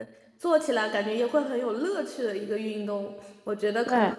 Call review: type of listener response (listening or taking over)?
listening